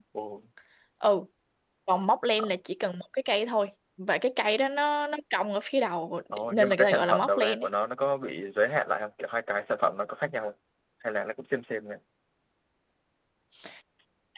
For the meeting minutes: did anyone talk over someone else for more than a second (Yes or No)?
Yes